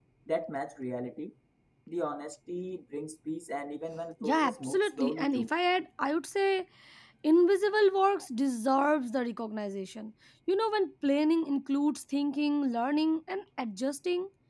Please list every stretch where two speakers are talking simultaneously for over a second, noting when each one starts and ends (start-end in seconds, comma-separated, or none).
4.2-5.5